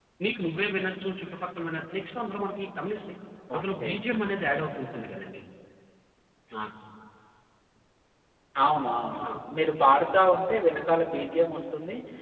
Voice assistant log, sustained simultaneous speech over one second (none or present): none